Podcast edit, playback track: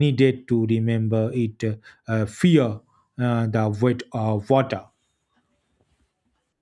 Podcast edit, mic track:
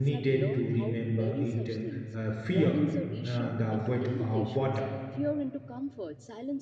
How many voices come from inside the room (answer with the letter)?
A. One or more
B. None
A